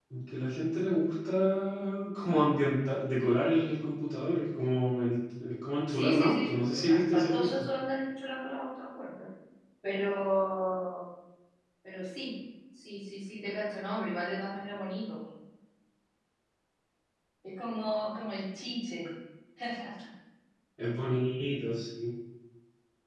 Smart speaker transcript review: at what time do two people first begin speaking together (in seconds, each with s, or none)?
5.9 s